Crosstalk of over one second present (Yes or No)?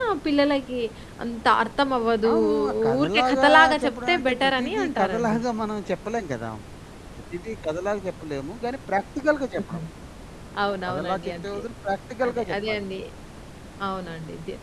Yes